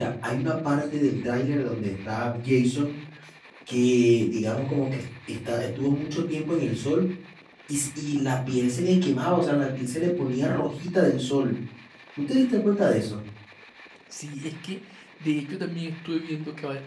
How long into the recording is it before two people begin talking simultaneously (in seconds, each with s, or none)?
none